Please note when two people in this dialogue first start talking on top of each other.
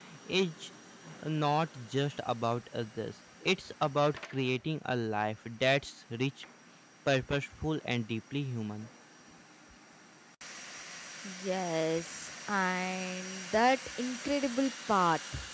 none

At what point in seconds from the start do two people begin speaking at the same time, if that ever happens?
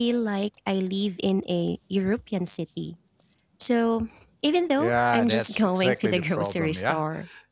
4.8 s

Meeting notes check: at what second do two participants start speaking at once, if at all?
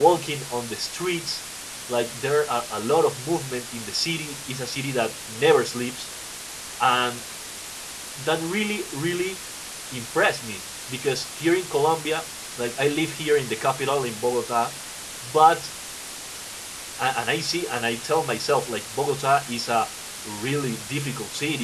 none

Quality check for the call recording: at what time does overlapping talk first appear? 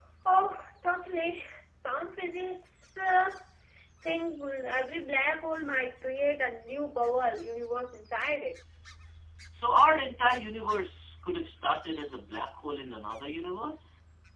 none

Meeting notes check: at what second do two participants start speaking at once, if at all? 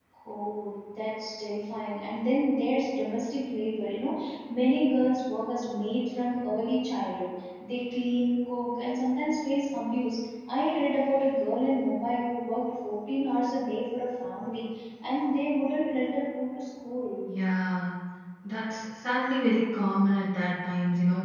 none

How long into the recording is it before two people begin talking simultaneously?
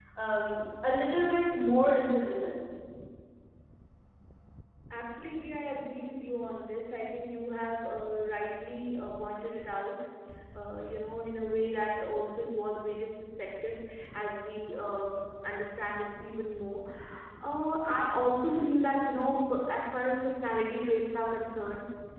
none

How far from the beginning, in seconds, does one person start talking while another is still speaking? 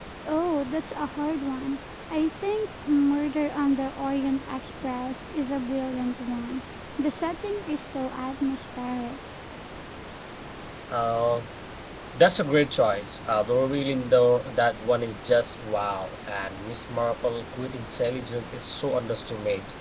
none

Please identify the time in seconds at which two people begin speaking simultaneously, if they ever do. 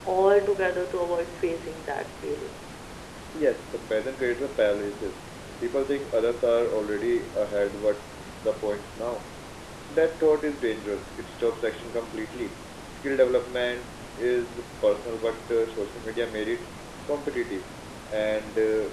none

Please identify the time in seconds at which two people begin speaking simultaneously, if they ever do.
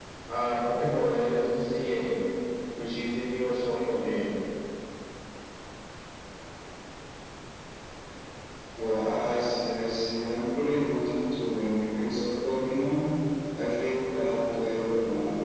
none

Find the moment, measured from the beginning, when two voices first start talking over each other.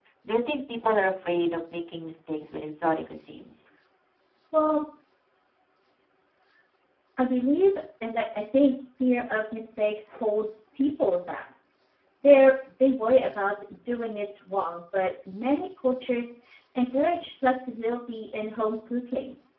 none

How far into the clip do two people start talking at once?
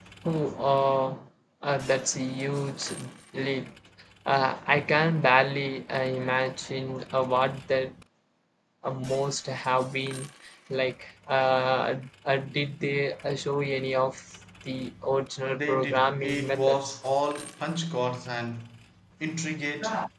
15.5 s

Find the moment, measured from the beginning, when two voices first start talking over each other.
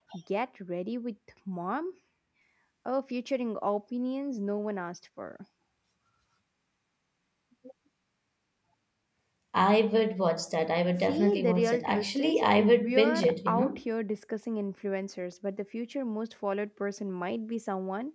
11.0 s

